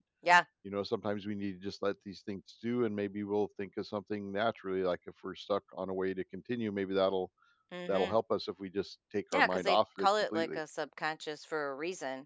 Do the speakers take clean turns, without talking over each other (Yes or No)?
No